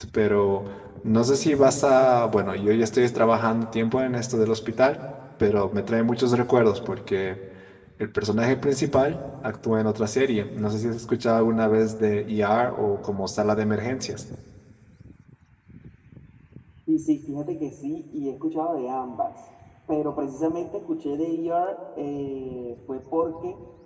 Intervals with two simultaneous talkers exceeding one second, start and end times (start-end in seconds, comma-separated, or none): none